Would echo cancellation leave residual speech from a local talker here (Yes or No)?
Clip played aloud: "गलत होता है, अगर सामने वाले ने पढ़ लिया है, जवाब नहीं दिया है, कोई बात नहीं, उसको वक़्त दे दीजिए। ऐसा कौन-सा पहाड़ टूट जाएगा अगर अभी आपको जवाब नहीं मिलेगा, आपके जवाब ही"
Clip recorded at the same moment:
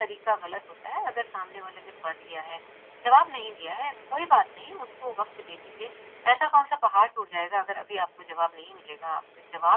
No